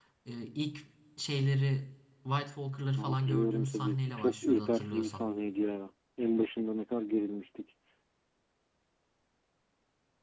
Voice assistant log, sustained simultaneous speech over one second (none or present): present